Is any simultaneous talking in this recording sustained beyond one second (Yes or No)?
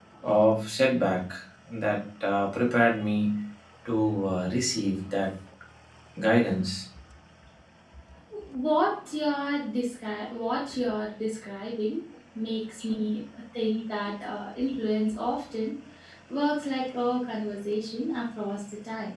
No